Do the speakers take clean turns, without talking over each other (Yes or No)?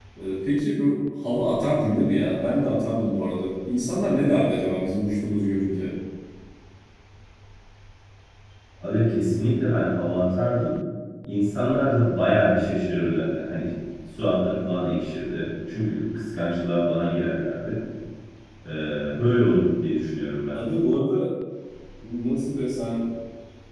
Yes